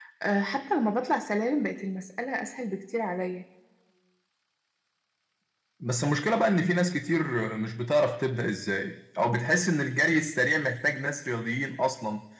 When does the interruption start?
none

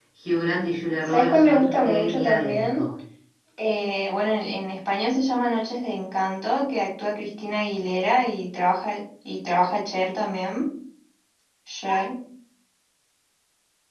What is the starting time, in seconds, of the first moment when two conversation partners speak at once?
1 s

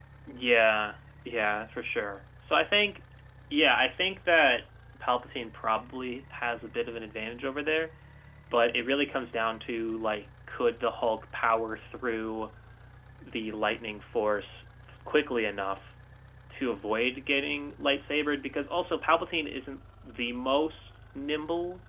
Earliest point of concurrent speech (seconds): none

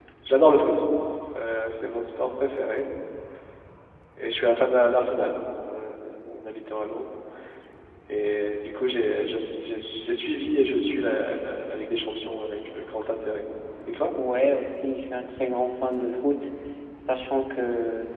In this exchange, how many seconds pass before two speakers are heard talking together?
none

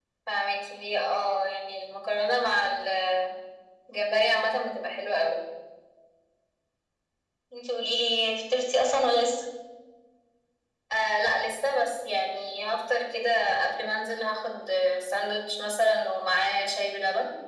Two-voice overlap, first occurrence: none

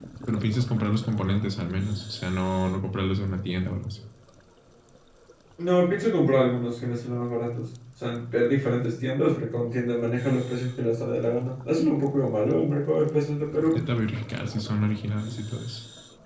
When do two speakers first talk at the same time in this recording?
none

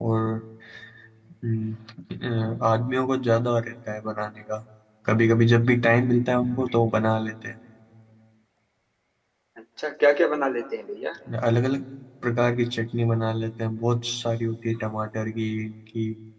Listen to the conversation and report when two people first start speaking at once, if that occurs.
none

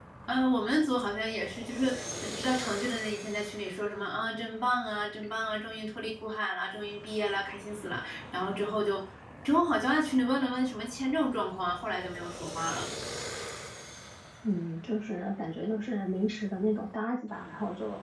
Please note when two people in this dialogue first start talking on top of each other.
none

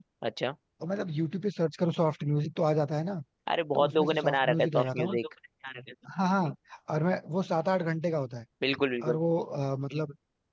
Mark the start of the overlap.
4 s

